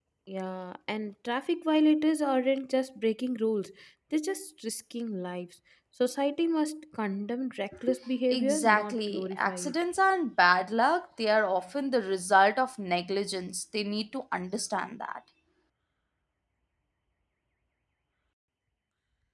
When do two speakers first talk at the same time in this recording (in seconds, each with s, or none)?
8.3 s